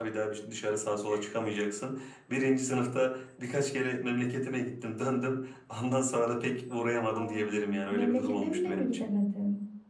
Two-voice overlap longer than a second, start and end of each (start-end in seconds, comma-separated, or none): 7.2-9.1